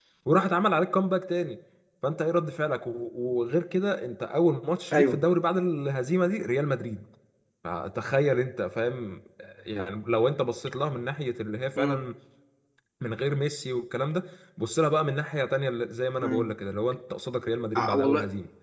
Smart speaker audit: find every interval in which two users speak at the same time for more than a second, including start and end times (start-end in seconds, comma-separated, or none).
none